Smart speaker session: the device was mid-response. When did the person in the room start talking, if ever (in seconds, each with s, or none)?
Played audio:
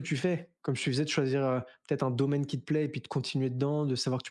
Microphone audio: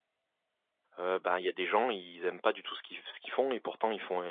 1.0 s